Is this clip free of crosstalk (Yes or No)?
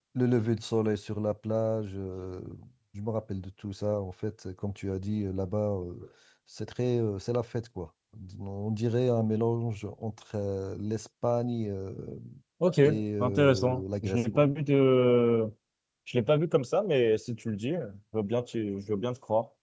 No